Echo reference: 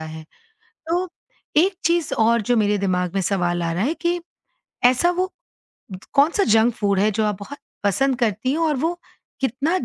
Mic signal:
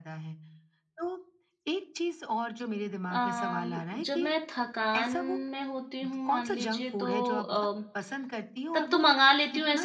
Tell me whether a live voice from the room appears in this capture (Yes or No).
Yes